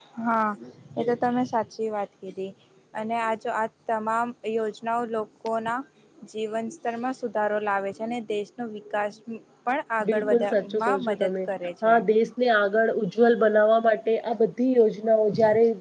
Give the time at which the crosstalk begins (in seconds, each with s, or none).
10.1 s